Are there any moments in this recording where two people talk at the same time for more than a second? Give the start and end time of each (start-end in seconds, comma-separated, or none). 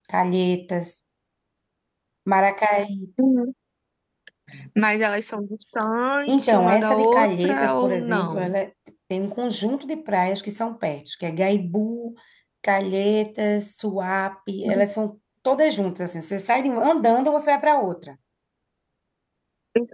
6.3-8.5